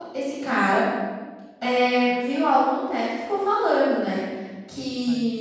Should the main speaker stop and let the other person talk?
No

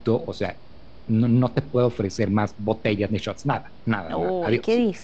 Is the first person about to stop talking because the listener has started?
Yes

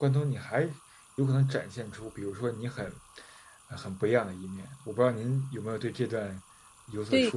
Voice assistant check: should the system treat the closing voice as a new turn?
Yes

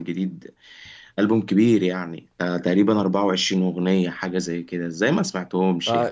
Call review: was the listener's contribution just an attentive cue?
No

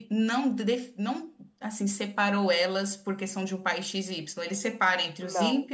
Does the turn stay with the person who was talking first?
Yes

